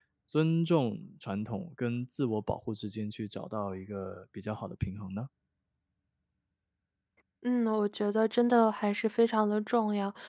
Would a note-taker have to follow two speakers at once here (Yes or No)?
No